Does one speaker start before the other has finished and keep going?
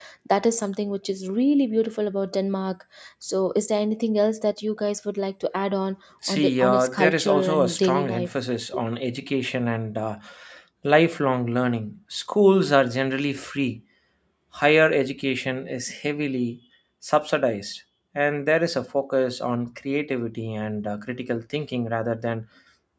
Yes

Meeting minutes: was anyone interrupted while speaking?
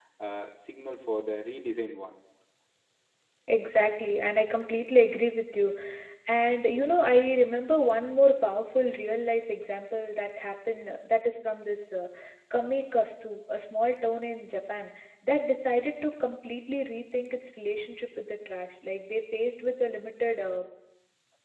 No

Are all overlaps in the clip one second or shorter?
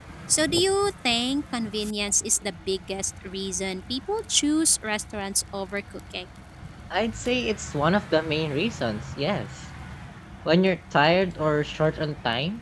Yes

